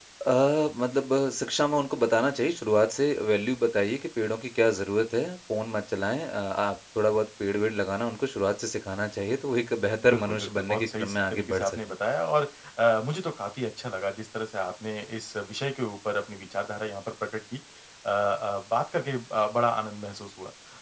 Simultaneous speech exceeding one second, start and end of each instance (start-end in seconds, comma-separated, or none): 10.0-11.8